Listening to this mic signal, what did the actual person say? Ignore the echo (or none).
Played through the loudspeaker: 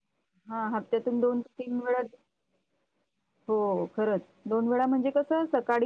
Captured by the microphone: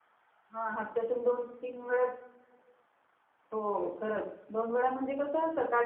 none